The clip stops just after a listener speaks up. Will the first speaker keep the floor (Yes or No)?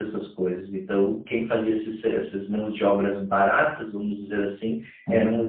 Yes